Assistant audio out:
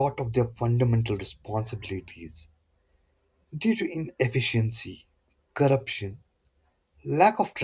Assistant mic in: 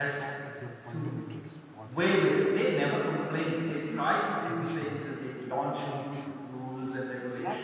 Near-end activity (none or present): present